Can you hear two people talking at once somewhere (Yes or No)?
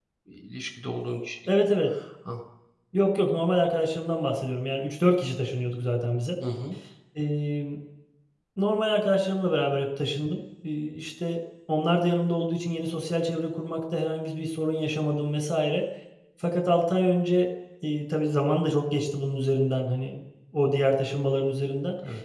No